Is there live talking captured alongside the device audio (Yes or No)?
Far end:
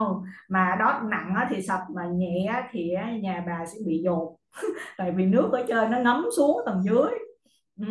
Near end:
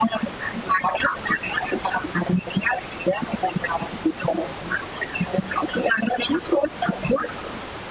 No